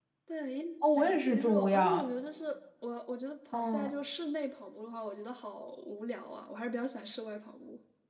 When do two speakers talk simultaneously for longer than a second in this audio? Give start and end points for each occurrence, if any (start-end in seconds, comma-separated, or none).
0.8-2.1